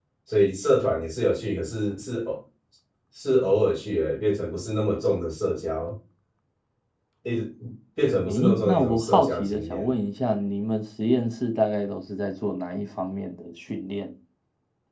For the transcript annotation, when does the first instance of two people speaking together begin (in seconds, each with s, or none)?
8.3 s